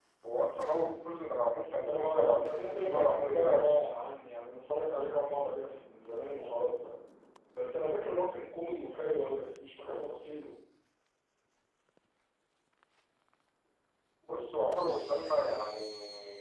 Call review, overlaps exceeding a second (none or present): present